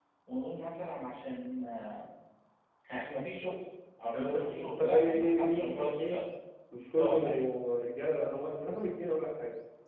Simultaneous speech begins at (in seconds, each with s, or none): 4.1 s